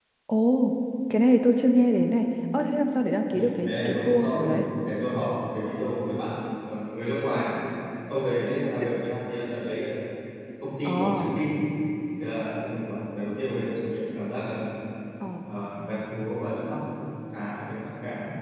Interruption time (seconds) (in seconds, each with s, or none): 3.3 s